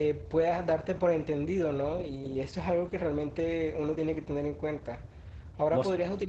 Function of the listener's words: listening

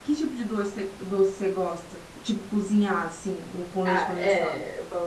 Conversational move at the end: taking over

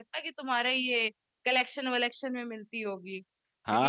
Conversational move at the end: taking over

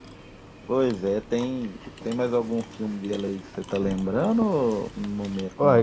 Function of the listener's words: taking over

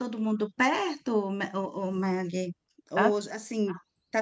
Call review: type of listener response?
listening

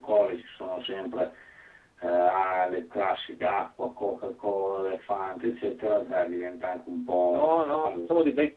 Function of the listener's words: taking over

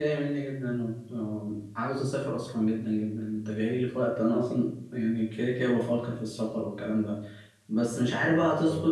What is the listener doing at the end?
listening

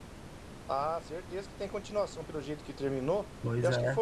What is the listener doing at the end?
listening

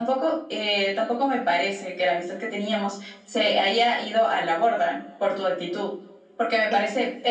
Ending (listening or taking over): listening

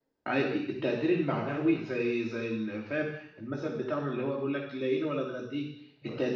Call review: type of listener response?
listening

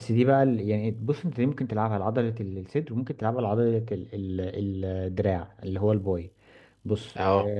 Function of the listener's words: listening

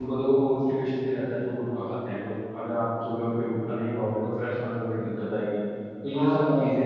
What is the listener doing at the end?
taking over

